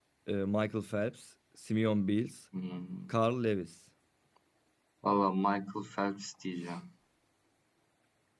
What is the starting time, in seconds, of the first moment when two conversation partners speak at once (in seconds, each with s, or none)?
none